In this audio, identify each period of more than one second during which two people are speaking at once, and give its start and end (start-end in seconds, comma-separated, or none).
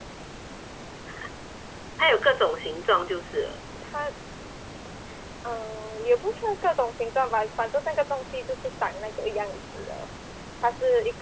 none